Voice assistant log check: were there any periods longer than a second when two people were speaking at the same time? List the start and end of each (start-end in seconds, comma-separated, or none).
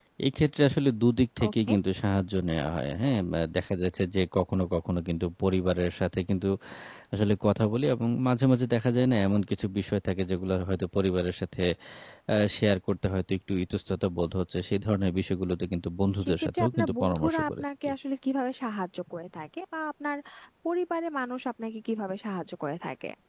16.2-17.9